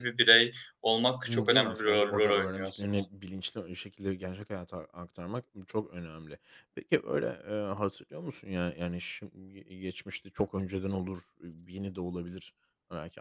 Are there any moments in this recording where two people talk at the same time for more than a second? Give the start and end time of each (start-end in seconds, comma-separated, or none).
1.3-2.8